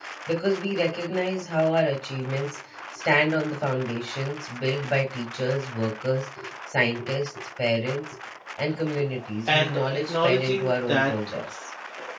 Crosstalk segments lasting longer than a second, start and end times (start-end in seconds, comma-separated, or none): 9.4-11.1